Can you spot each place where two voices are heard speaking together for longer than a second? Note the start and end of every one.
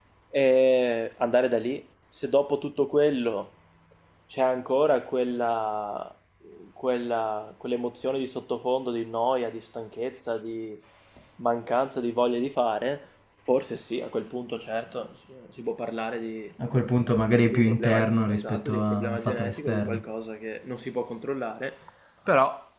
17.5-20.0

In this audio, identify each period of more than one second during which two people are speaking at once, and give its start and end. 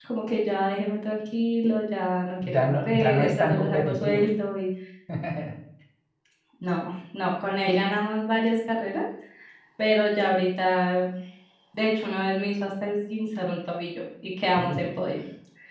2.4-4.2

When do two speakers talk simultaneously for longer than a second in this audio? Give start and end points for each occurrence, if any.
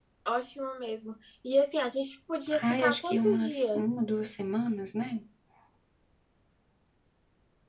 2.6-4.2

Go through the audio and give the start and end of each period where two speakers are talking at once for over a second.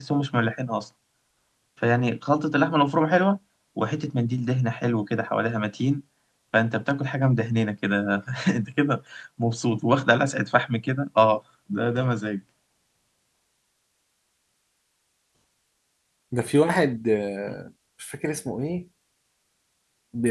none

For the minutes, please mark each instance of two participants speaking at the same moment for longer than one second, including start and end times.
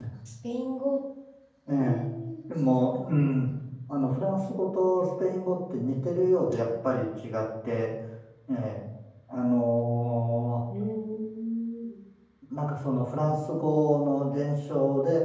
none

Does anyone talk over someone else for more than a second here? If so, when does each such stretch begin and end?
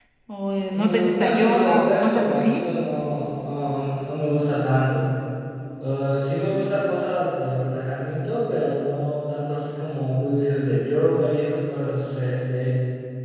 0.7-2.6

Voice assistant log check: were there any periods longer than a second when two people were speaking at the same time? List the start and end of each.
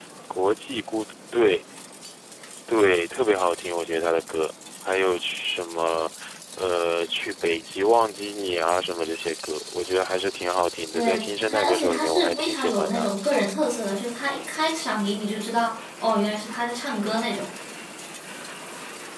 10.9-13.1

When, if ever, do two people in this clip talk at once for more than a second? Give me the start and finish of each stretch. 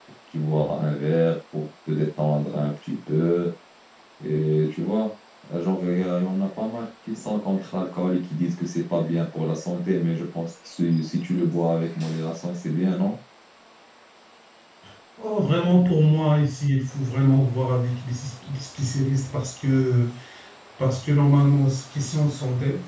none

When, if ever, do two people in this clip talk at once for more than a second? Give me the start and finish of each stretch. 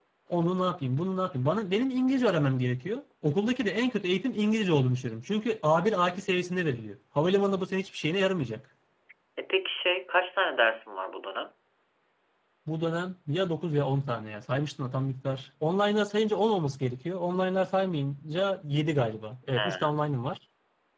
none

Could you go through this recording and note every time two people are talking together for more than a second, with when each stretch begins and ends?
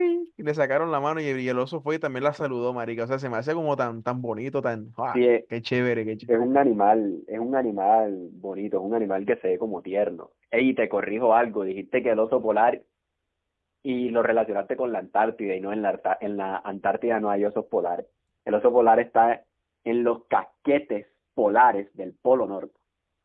none

